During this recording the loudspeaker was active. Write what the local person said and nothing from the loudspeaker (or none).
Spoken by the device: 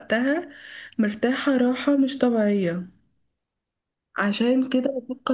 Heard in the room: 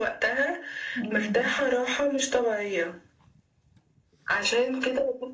امم